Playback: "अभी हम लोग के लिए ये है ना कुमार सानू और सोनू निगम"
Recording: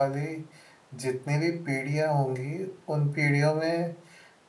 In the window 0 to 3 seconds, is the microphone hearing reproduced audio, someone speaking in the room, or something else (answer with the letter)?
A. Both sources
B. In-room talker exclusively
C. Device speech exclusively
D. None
B